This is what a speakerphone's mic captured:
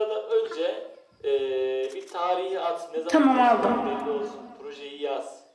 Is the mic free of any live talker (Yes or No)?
No